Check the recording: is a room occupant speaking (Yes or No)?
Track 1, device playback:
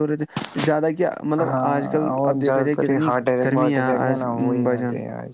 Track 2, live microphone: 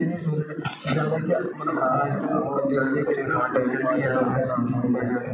No